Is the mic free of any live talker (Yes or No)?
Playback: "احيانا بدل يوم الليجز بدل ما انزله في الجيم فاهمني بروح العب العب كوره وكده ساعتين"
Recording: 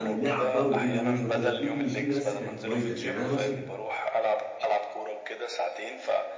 No